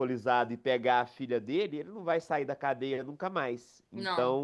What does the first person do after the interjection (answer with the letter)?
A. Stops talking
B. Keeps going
B